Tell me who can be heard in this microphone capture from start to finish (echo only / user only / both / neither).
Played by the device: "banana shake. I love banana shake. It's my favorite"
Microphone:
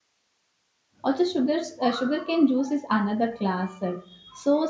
user only